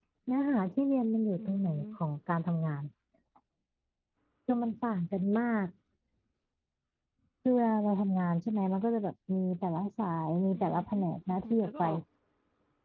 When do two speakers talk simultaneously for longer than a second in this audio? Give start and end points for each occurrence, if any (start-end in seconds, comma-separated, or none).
10.5-11.8